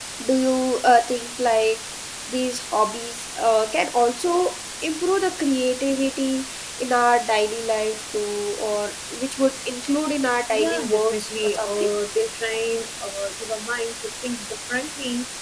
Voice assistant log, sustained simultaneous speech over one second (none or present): present